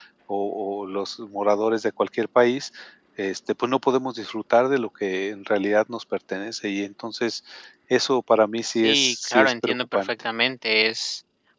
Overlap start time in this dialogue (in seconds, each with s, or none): 8.8 s